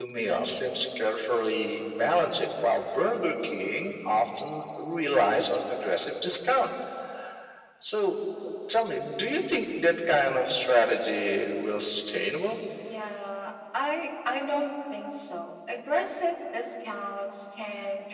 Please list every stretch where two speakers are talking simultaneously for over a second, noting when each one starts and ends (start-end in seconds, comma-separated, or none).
none